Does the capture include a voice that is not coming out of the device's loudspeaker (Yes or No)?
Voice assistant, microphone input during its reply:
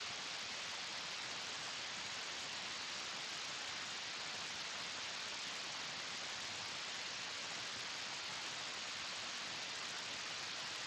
No